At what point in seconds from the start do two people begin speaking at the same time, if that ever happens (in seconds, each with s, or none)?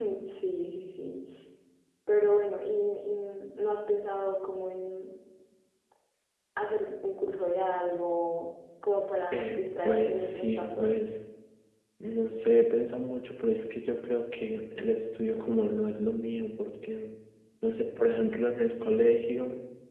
9.3 s